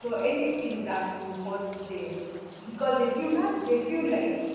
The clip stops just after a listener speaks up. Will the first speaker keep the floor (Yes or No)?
Yes